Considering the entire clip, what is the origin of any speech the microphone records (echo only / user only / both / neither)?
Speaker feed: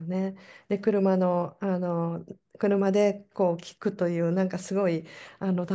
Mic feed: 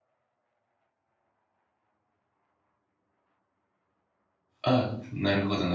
user only